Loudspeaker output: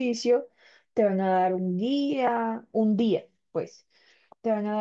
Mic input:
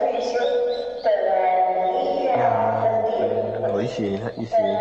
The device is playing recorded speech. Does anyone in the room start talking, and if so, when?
2 s

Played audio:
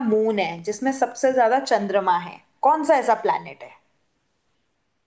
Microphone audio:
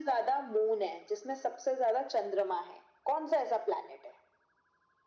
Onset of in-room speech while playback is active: none

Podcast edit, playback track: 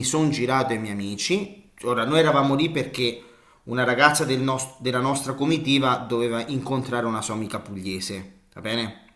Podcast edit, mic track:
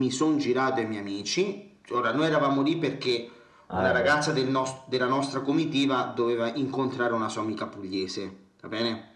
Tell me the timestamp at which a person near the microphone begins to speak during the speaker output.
4 s

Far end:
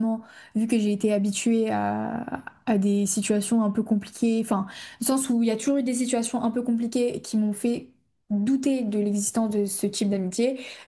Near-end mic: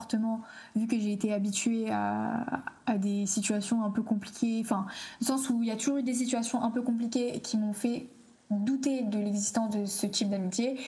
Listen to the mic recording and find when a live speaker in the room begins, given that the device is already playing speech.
none

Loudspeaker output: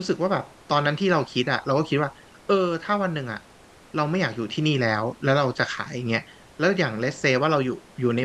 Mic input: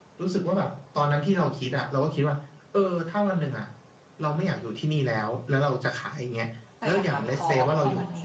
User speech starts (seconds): 7 s

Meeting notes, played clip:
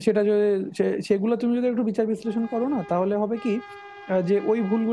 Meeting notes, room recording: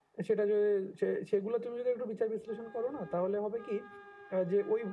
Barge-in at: none

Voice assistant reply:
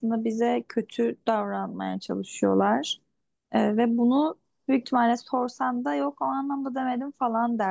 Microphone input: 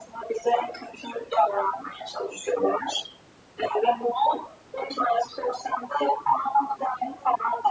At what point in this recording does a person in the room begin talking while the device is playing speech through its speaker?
none

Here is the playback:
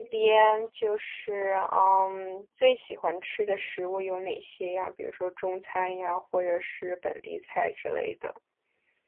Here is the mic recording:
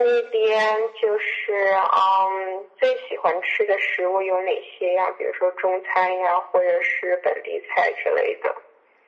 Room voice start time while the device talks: none

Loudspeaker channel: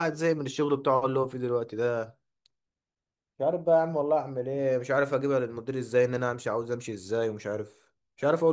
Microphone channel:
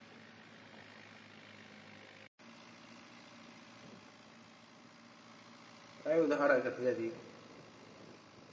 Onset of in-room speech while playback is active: 6 s

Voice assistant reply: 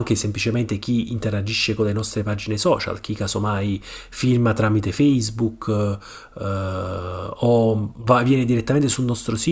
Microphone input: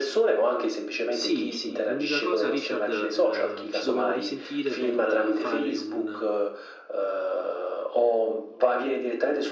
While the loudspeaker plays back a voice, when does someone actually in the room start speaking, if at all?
1 s

